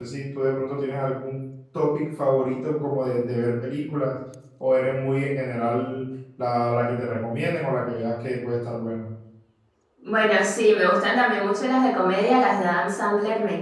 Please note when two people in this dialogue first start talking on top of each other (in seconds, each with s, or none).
none